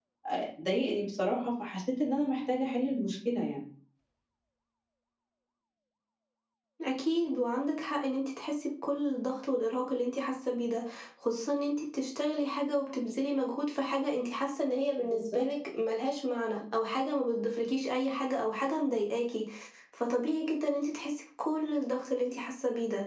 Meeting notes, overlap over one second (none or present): none